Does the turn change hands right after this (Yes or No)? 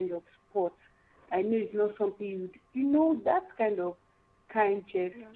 Yes